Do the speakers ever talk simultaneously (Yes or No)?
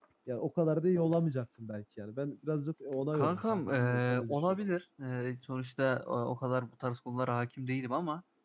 Yes